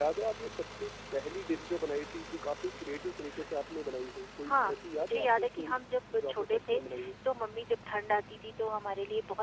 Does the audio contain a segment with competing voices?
Yes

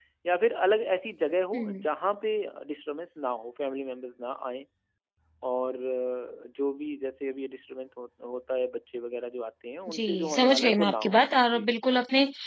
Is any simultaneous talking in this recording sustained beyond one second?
Yes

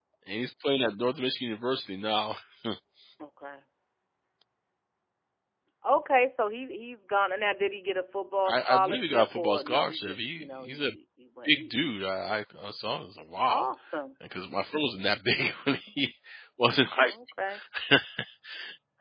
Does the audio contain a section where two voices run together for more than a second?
Yes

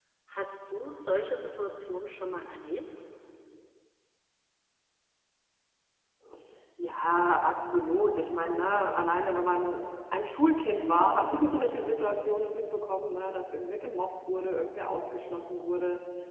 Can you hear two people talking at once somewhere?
No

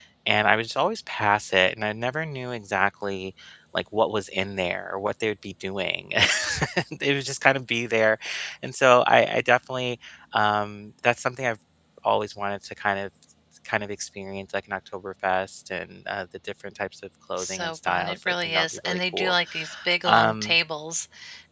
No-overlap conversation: No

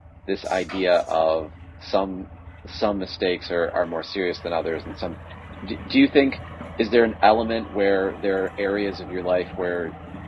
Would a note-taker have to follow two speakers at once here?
No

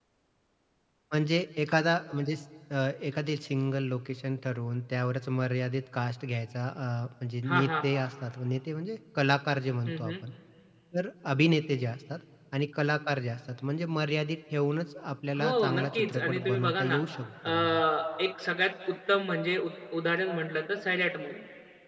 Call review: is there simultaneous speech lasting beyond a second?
Yes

